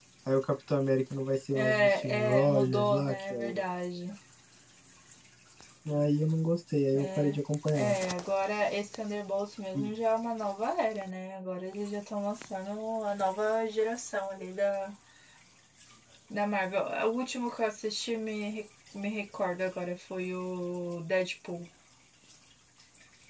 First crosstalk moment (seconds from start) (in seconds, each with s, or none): 1.5 s